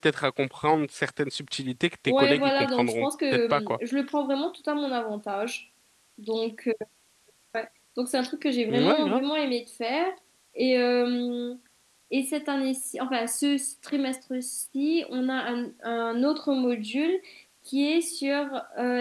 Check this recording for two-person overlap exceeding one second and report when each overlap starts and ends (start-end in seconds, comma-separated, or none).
2.1-3.8